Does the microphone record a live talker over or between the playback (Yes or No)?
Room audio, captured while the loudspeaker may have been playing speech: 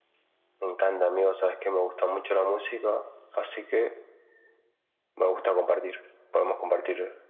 No